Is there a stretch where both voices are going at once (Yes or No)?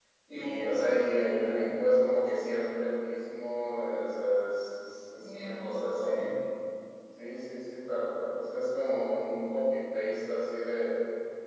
Yes